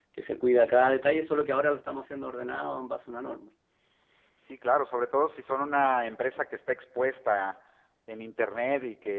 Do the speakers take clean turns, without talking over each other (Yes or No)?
Yes